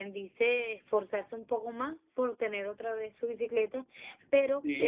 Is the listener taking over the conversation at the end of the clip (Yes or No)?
Yes